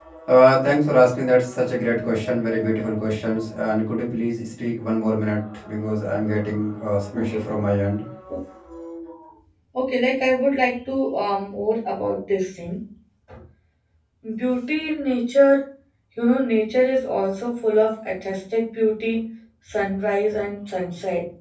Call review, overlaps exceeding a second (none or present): none